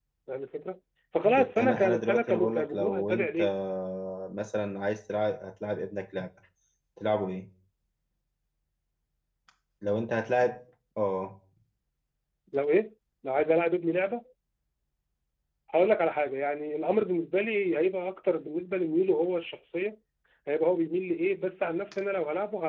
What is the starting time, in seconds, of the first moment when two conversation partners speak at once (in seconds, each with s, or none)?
1.2 s